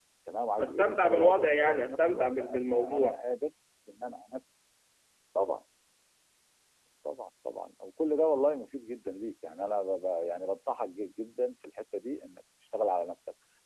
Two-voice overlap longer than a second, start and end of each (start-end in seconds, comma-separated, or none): 0.6-3.2